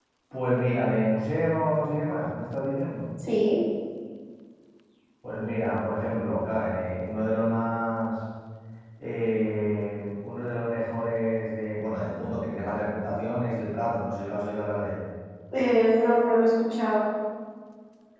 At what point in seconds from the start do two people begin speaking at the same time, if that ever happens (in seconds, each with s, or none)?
none